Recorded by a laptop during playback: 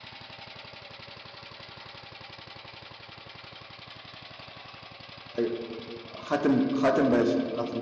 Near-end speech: present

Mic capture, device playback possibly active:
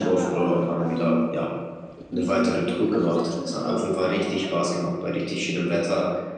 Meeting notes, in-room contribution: present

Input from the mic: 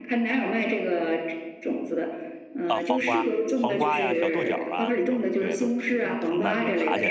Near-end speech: present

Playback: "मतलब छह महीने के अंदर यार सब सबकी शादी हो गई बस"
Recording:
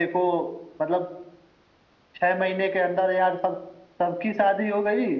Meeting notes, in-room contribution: none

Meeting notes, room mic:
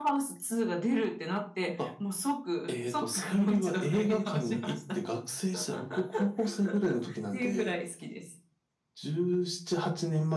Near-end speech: none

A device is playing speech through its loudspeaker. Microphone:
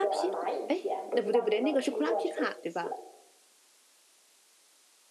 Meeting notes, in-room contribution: present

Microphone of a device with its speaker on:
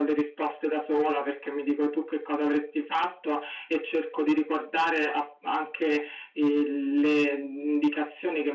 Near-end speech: none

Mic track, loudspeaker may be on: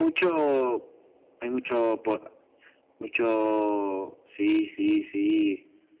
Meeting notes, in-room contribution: none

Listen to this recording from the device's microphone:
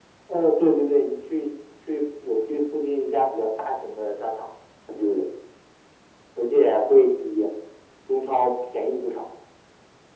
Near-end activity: none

